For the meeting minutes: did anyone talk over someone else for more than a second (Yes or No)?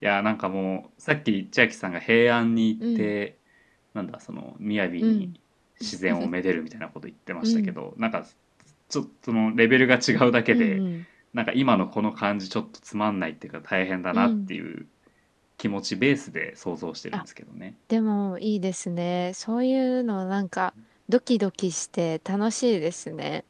No